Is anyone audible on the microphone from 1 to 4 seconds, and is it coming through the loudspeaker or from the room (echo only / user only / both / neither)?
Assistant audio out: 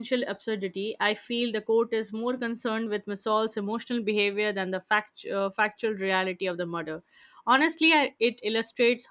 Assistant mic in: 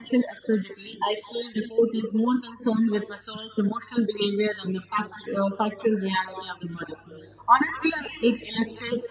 echo only